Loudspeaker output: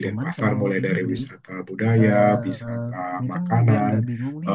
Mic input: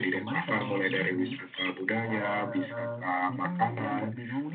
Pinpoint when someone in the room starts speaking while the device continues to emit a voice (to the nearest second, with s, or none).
none